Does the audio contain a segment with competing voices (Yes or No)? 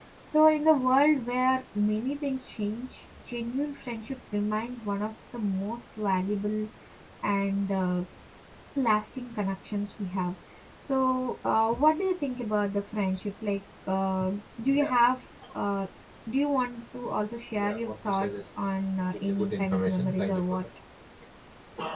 Yes